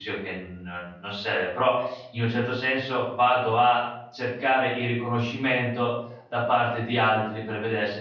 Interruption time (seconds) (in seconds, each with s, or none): none